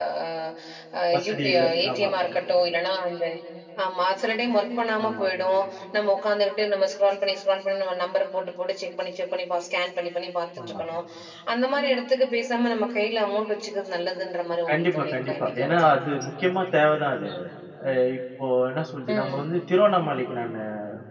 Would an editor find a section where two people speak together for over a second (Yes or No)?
Yes